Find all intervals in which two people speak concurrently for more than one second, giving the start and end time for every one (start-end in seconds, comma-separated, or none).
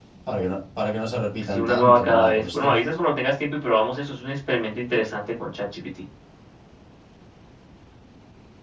1.5-2.8